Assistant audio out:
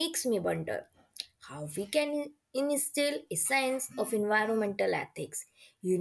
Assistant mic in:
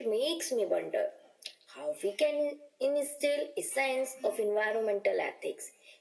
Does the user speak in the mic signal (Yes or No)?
No